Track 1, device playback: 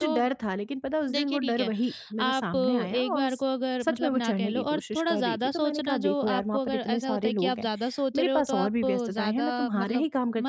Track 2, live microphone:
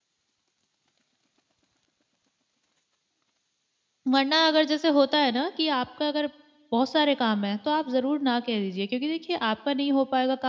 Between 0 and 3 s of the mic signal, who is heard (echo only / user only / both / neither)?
neither